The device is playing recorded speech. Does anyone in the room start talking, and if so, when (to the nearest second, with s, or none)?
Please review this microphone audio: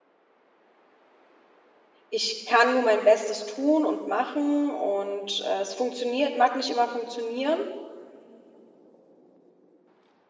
2 s